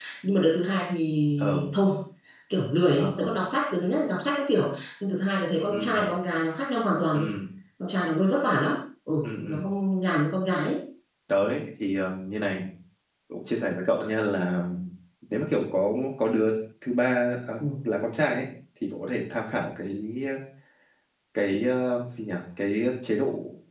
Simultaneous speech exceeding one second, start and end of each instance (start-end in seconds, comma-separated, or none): none